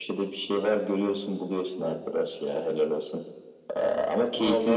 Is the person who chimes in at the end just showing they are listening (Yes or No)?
Yes